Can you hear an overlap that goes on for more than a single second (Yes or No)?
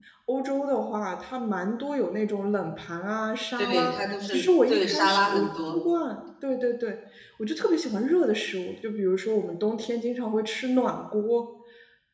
Yes